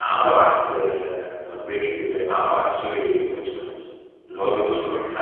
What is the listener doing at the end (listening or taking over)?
listening